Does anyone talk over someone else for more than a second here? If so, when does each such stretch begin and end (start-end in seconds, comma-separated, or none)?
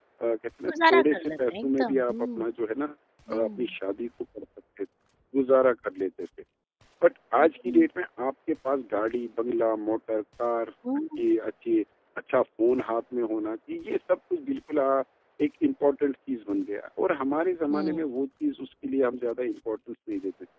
0.7-2.4